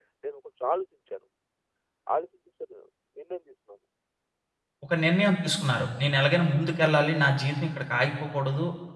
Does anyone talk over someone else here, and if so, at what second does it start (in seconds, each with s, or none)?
none